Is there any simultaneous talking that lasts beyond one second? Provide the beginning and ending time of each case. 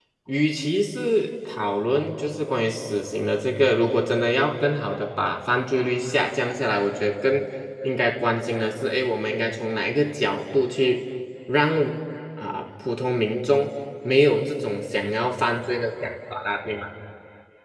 none

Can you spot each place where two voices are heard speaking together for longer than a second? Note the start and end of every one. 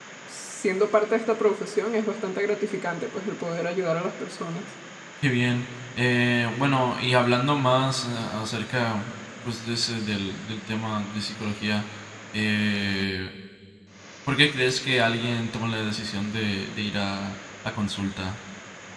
none

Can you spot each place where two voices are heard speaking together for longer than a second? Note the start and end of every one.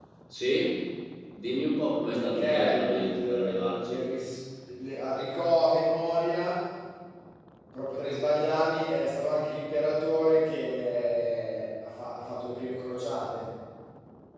2.1-4.0

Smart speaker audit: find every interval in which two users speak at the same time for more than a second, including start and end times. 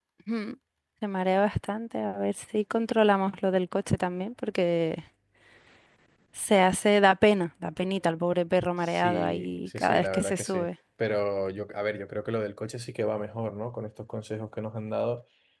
8.8-10.7

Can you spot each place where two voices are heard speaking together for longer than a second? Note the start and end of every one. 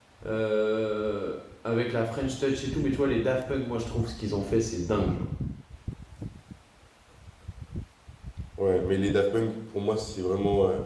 none

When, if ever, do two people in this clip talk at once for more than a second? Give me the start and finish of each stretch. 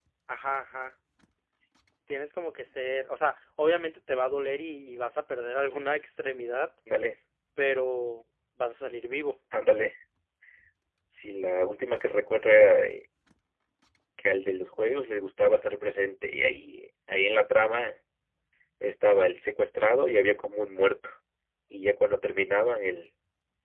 none

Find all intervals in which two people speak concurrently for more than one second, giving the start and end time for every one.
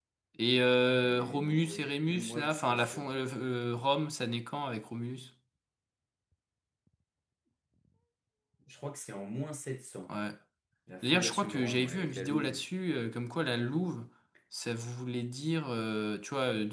0.9-3.2, 11.0-12.6

